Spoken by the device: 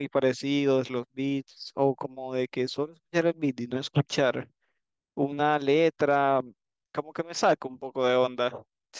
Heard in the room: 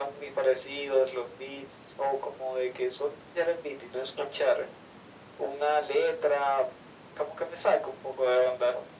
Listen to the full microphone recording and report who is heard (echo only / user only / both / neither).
echo only